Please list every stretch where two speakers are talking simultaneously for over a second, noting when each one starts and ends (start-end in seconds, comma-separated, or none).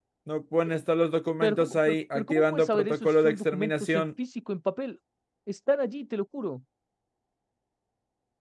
1.4-4.1